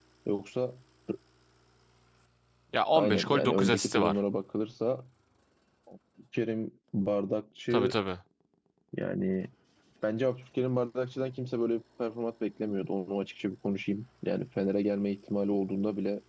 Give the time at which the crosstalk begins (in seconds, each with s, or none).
2.9 s